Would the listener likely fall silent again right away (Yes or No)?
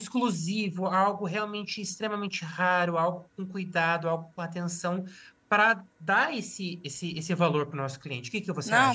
No